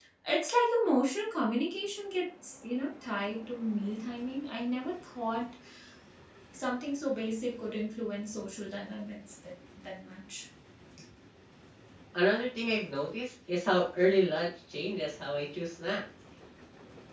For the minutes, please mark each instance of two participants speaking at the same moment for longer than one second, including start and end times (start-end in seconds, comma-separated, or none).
none